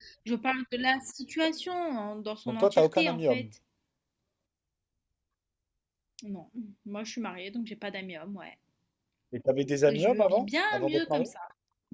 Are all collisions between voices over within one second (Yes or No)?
No